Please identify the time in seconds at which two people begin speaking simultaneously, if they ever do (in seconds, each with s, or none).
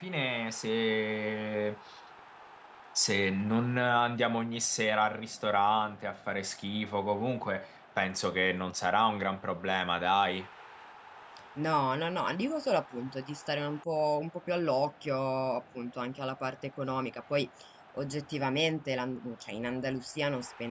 none